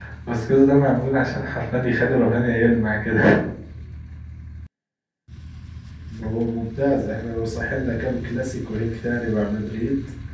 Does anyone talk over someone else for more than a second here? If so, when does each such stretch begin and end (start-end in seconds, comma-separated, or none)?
none